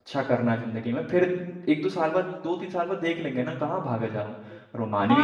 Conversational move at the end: taking over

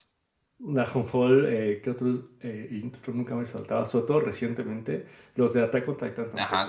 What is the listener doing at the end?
taking over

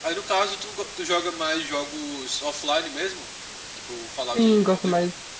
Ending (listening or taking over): taking over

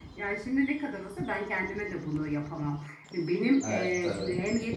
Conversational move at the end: listening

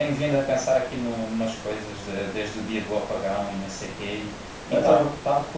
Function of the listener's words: listening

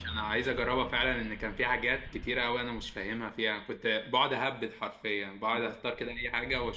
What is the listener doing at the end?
listening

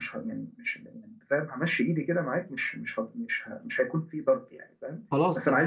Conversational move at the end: listening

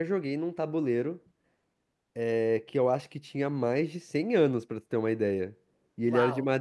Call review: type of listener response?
listening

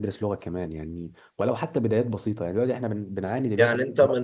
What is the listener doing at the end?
taking over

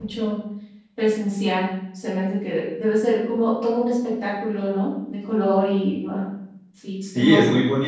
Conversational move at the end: taking over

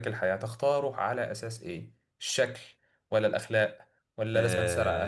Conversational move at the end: listening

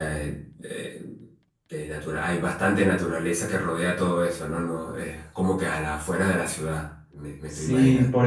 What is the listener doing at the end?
taking over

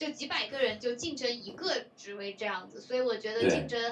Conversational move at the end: listening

